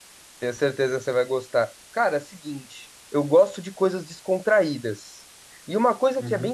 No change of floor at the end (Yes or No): Yes